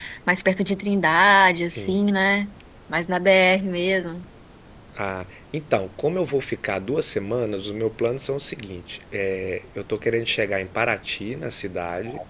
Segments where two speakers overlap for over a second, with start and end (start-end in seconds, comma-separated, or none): none